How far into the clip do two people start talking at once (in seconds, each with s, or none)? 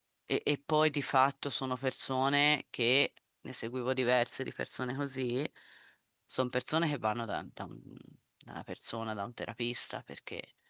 none